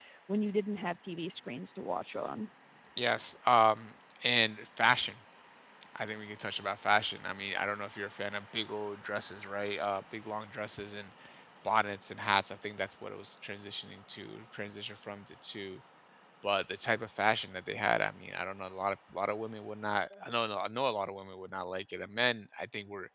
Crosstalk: none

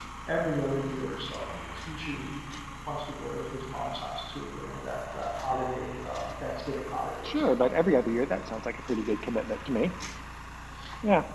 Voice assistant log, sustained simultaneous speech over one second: none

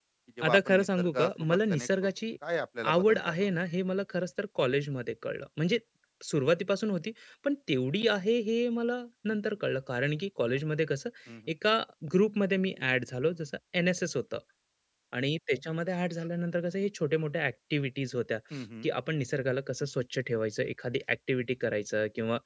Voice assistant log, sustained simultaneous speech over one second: present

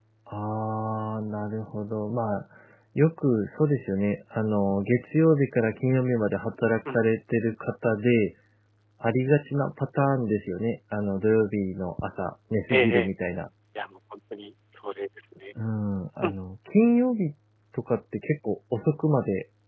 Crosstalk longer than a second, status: none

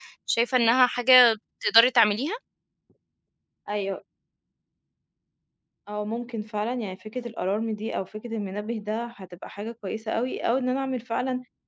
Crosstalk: none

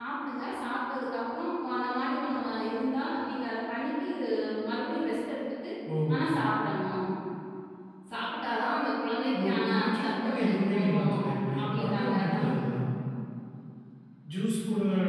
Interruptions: present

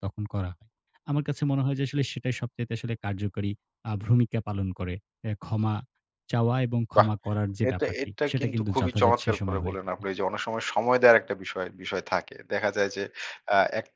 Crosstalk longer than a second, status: present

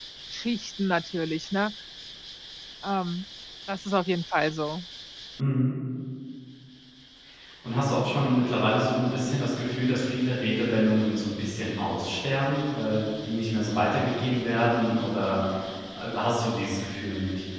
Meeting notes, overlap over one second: none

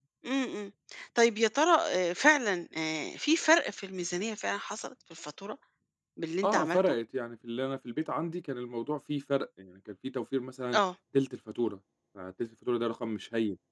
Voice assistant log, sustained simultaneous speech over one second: none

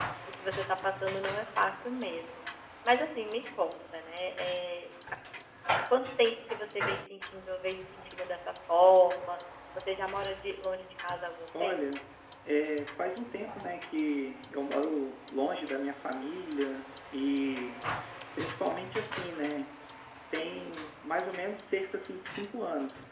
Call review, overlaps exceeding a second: none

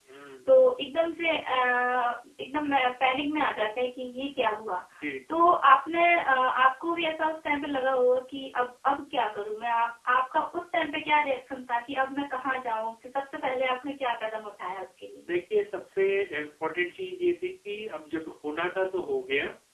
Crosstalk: none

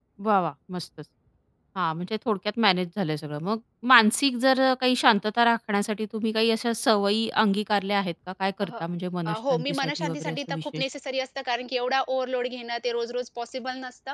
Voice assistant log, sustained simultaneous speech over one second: present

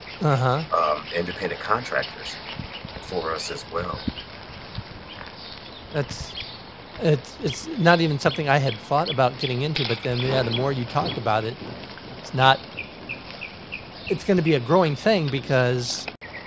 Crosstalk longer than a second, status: none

